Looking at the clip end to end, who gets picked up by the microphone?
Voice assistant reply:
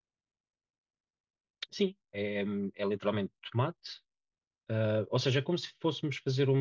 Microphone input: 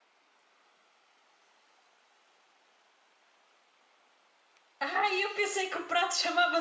user only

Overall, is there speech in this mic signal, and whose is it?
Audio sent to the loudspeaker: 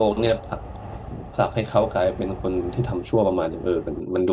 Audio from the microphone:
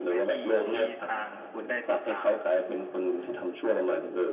both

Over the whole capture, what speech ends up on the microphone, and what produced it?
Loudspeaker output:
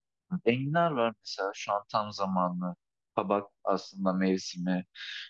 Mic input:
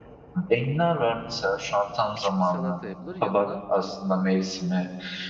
both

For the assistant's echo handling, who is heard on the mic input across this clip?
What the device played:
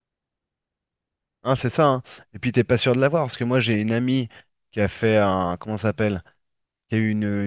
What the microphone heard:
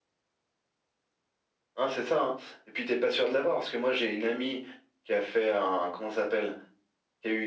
echo only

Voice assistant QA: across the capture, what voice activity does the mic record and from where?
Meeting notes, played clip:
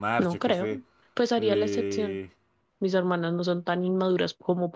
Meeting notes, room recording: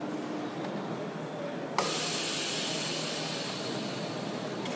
neither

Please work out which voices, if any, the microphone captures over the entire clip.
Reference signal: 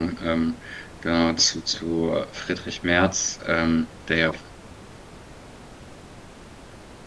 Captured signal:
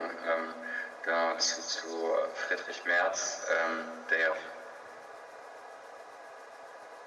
echo only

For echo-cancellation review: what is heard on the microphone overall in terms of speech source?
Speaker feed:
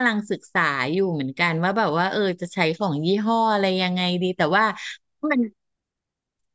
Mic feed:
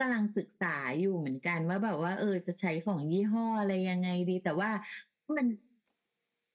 echo only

